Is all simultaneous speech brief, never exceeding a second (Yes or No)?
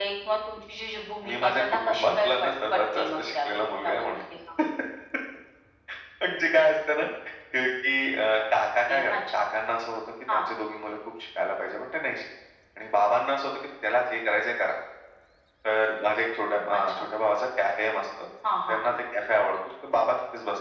No